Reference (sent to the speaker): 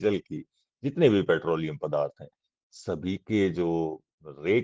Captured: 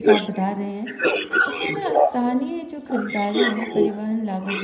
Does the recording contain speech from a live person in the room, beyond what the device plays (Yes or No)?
Yes